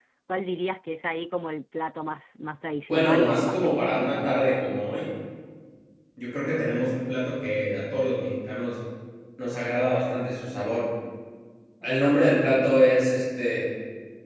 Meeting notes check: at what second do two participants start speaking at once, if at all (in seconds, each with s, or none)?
2.9 s